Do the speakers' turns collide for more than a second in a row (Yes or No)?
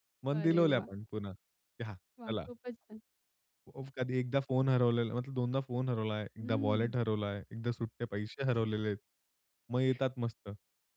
No